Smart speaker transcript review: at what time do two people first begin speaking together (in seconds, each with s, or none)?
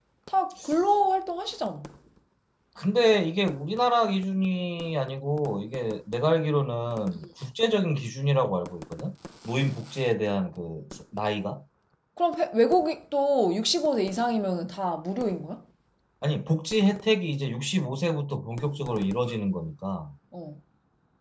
none